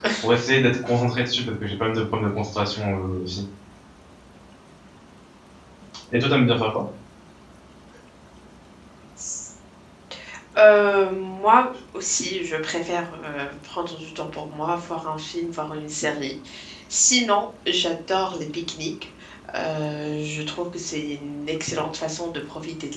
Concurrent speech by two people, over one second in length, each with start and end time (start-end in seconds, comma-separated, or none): none